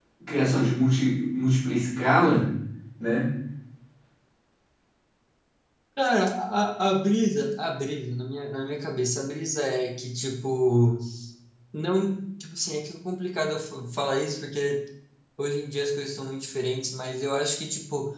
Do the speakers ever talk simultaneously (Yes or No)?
No